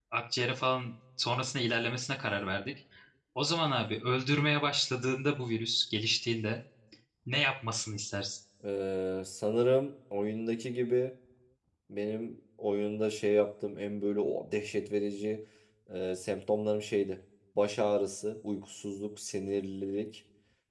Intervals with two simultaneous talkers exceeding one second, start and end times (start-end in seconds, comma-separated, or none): none